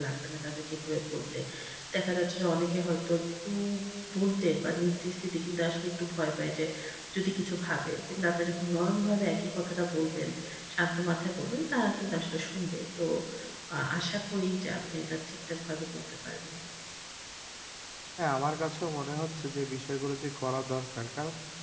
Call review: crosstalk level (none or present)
none